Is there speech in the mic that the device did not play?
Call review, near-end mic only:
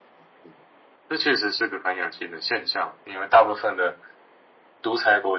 No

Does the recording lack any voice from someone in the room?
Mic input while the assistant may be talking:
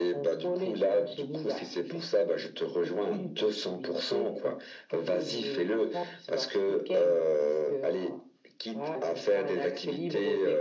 Yes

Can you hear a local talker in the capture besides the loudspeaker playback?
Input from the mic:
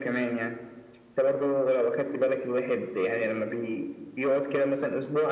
No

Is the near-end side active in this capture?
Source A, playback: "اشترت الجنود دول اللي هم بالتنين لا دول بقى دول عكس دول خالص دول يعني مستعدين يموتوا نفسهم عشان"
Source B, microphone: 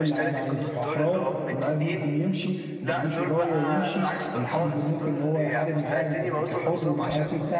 Yes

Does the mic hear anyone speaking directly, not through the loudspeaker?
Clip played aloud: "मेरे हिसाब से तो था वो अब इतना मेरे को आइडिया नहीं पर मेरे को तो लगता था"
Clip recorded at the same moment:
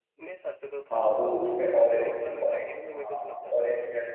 Yes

